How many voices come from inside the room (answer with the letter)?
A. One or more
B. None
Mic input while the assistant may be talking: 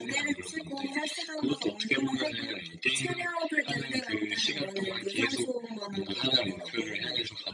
B